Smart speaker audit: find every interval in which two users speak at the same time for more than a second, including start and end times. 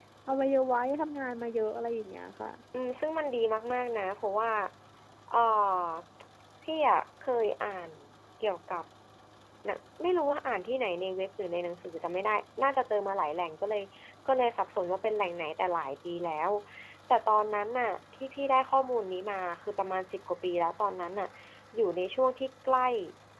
none

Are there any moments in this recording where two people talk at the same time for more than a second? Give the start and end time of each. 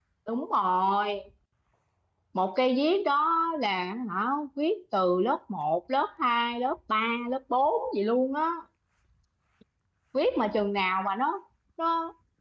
none

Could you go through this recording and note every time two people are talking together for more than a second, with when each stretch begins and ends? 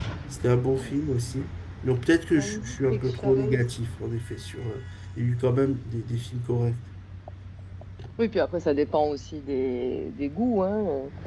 2.4-3.6

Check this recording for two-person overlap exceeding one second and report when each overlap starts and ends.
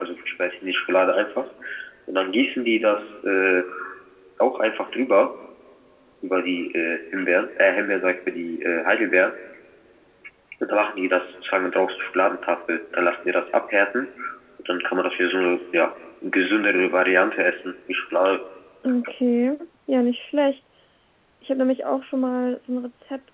none

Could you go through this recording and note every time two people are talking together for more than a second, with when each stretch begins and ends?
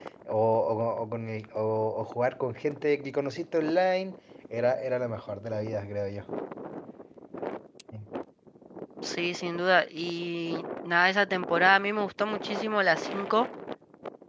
none

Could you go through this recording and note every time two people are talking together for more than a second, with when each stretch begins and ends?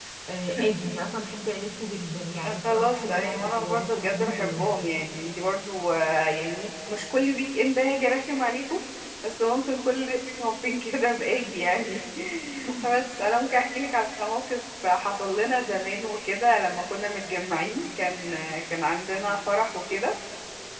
2.6-4.7

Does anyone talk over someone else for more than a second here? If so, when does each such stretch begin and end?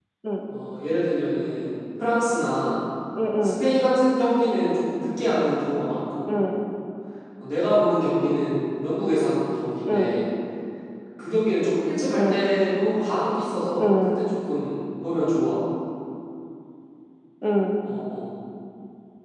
none

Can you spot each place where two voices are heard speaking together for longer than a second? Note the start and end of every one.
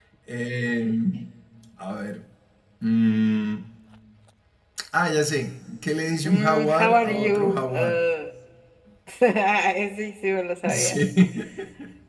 6.2-8.0

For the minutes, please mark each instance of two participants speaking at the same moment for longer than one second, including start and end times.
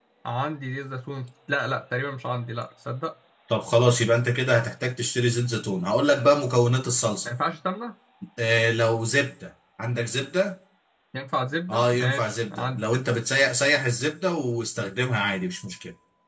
11.7-13.0

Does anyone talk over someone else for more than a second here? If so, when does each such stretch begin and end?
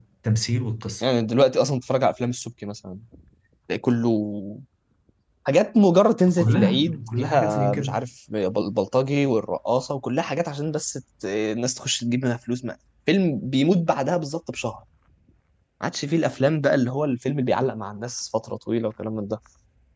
6.4-7.9

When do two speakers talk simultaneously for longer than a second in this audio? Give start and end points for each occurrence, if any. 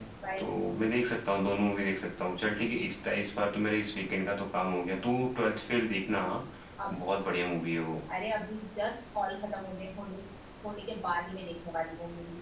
none

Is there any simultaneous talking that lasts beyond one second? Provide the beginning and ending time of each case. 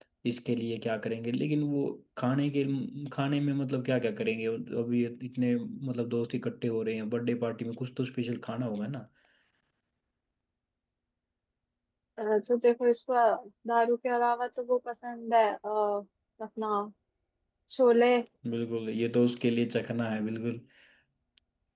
none

